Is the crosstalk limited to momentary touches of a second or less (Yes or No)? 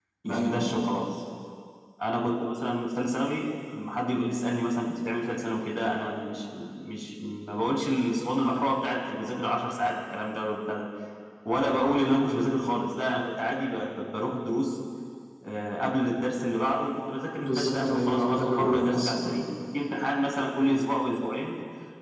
No